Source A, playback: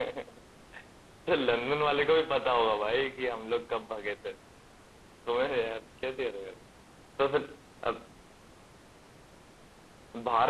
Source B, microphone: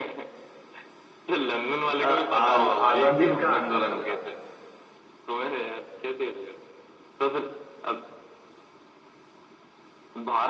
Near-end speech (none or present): present